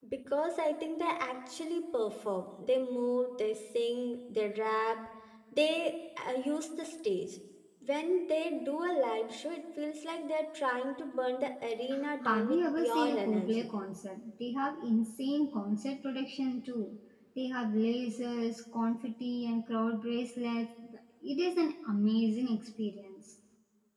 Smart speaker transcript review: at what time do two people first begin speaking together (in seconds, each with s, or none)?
12.2 s